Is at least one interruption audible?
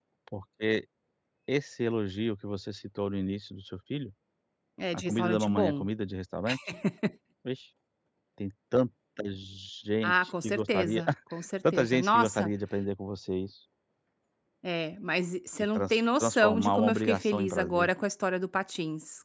Yes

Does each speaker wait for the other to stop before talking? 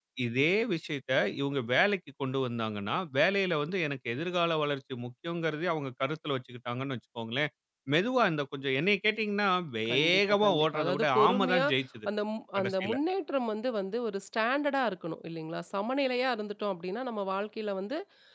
No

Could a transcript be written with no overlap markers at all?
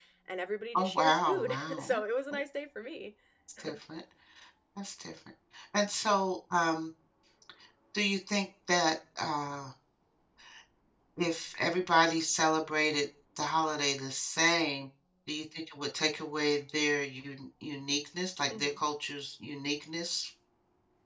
No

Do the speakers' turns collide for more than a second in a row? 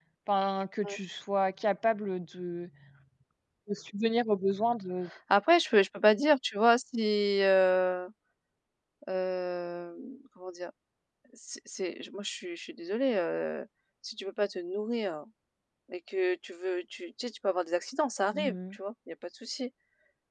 No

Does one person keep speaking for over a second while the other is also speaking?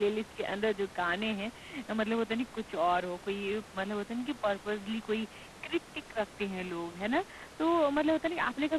No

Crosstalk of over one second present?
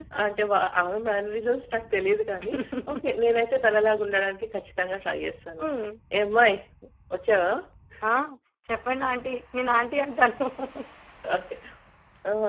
No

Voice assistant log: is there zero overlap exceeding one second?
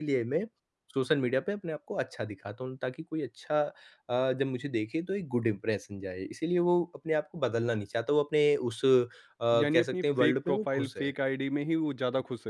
No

